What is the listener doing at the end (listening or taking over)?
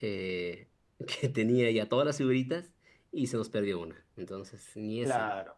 taking over